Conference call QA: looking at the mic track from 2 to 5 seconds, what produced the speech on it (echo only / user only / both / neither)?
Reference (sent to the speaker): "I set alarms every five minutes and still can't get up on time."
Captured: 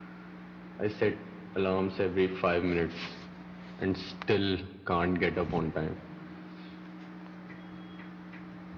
echo only